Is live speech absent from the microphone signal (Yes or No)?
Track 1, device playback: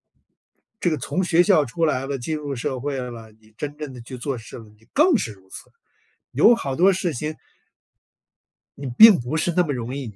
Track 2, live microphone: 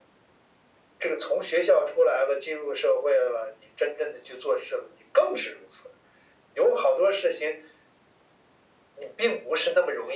Yes